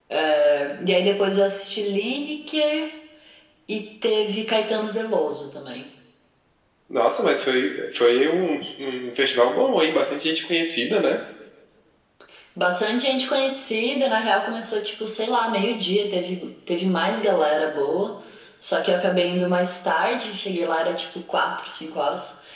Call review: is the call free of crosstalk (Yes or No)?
Yes